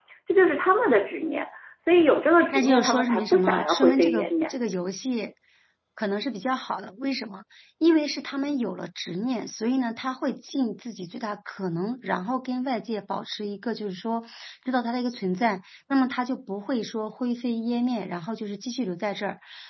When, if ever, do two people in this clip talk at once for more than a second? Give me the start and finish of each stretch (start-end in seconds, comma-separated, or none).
2.5-4.5